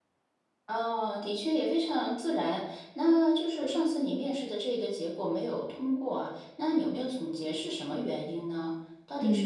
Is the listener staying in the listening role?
No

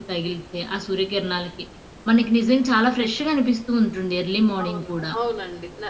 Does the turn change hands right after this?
Yes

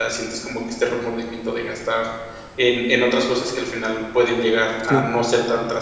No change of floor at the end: Yes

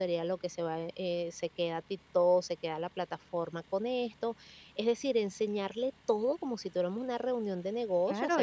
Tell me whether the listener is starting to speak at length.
Yes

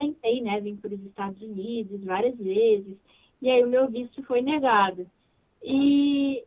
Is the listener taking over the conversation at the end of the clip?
No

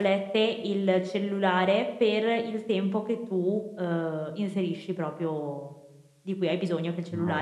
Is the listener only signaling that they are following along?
Yes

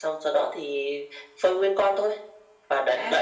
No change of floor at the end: No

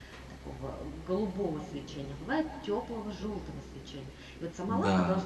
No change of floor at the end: Yes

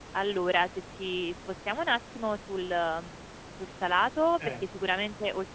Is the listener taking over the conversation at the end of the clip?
No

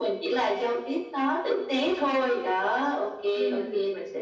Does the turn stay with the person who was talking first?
Yes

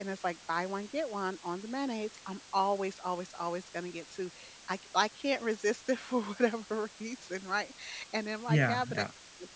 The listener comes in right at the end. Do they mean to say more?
No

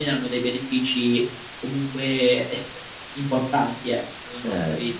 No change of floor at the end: No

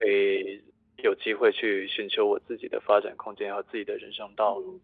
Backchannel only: No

